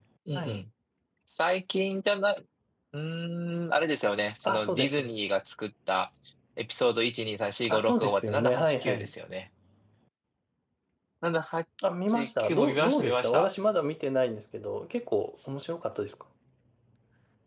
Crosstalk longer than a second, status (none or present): present